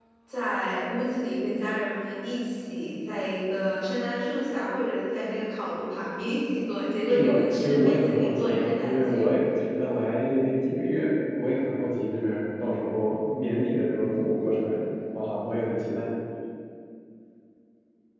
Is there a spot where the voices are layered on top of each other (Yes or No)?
Yes